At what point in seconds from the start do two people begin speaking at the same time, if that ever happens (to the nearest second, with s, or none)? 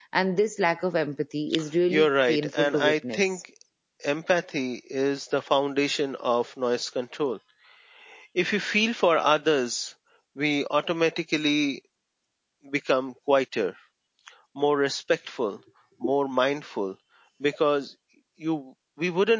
2 s